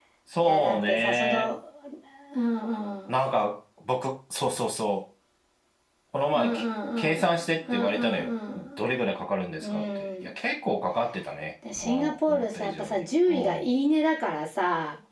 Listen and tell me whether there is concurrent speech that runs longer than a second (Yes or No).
Yes